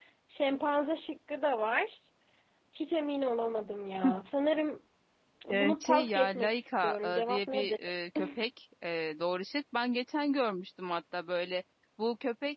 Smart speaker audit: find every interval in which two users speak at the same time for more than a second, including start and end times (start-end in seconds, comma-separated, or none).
5.5-7.8